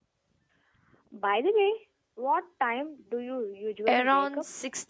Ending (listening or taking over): taking over